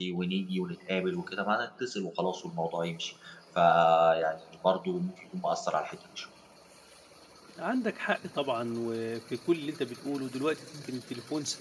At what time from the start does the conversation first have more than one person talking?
none

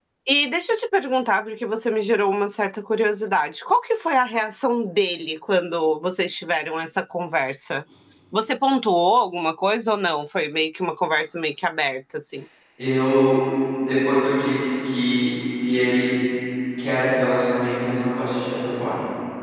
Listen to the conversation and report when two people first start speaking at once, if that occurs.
none

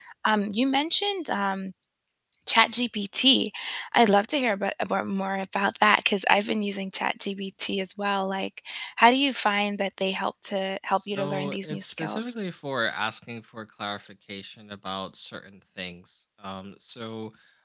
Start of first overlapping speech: 11.1 s

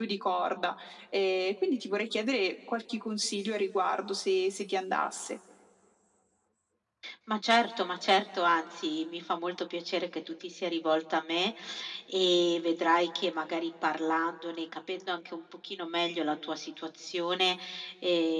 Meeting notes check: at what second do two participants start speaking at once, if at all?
none

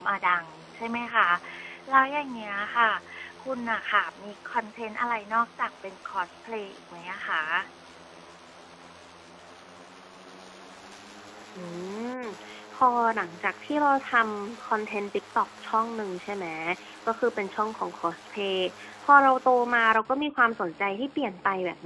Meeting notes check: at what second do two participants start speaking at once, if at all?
none

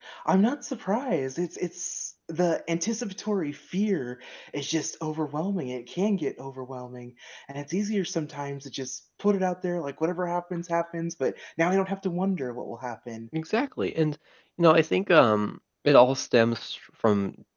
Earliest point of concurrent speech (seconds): none

